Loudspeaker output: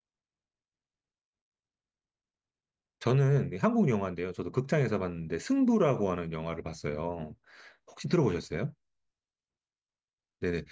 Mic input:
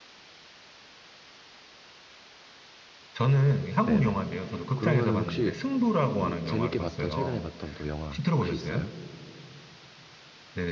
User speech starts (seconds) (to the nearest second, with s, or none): 4 s